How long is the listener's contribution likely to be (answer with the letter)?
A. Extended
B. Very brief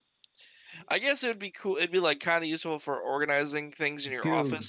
A